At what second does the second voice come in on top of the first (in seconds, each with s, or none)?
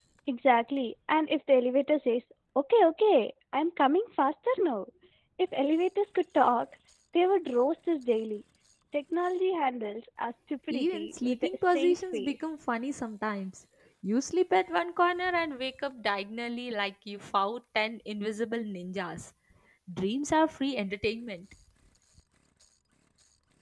10.7 s